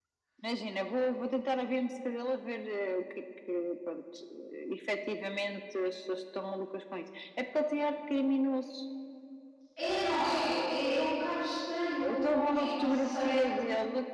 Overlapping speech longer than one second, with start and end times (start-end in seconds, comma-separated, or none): 12.0-13.4